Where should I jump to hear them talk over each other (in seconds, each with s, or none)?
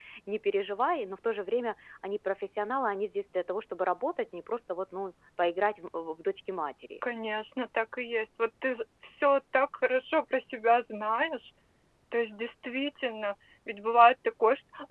none